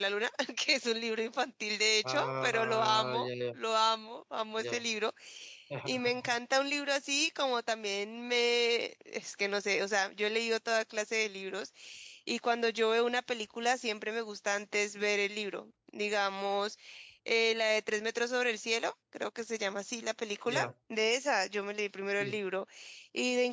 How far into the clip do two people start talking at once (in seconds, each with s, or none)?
2.0 s